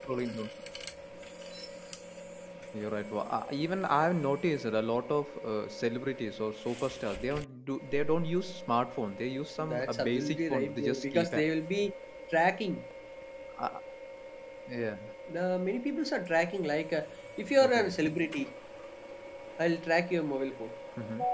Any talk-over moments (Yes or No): Yes